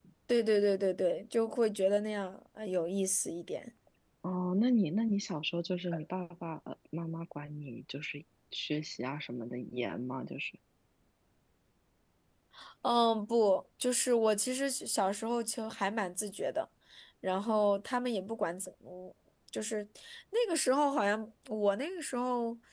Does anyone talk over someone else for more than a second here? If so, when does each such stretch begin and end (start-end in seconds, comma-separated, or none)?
none